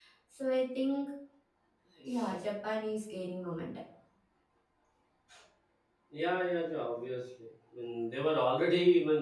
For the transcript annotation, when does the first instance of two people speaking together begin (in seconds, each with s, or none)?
none